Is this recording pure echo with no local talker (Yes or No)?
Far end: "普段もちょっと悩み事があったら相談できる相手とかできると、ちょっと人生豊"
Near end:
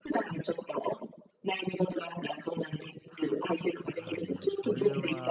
No